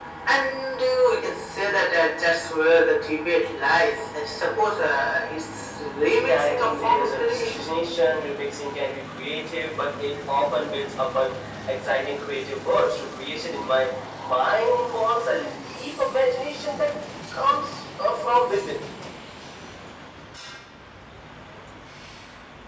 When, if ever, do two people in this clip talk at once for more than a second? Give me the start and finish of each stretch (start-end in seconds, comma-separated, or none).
6.2-7.7